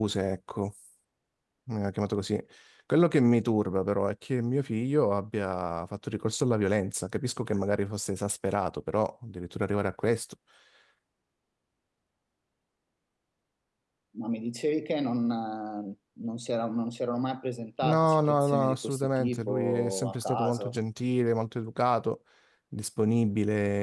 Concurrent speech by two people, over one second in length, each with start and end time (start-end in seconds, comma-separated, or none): 17.8-20.7